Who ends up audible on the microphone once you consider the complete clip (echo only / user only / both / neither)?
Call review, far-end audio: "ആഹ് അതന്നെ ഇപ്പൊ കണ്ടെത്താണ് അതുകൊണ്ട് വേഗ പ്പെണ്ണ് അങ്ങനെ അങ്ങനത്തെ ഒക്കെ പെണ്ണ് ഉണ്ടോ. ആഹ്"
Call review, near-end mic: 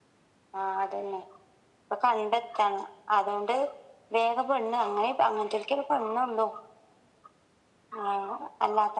echo only